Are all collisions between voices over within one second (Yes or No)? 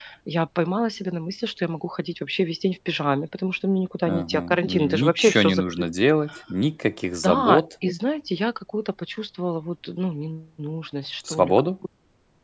No